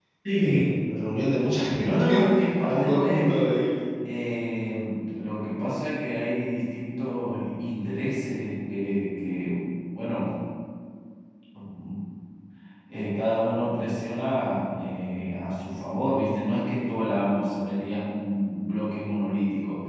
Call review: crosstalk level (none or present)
present